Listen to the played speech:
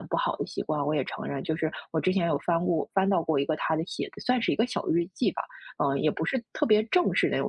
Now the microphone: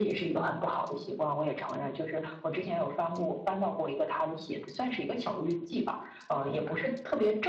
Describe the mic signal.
echo only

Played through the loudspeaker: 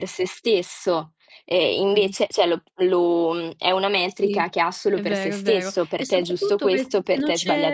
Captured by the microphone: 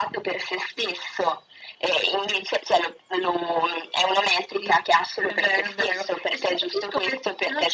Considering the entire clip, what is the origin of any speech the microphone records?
echo only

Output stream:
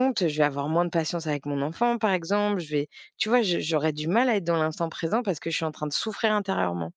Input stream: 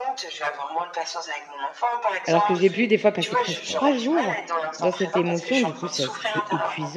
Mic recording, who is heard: both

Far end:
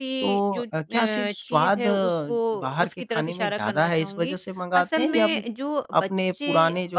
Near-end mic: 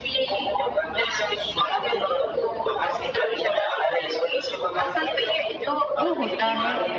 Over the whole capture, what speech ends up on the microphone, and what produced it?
both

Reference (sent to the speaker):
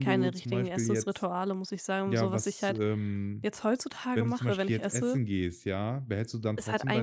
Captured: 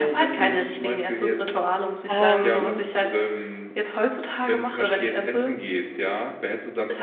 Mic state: both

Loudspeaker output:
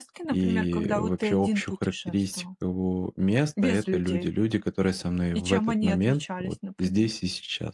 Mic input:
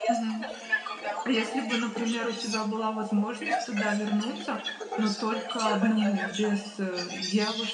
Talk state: both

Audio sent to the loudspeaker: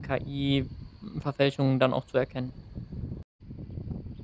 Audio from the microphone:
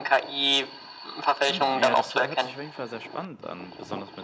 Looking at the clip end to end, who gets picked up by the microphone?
both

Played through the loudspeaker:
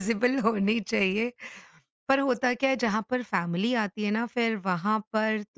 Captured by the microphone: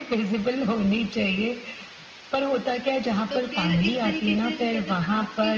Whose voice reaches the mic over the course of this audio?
both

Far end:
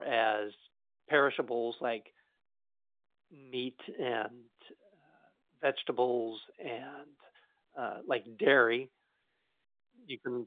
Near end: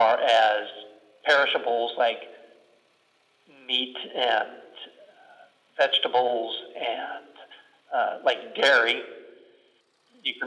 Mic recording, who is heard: echo only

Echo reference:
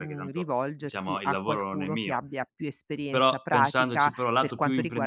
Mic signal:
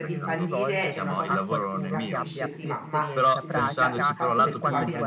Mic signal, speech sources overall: both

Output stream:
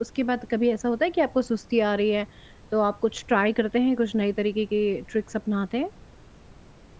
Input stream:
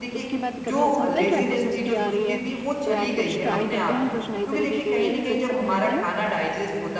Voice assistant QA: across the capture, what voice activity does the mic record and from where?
both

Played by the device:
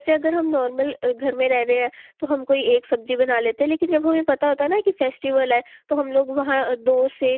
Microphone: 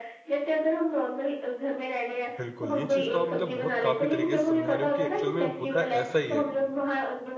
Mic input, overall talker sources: both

